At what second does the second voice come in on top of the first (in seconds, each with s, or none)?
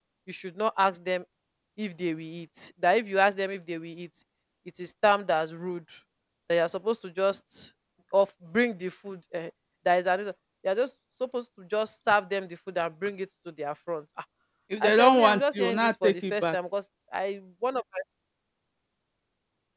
14.8 s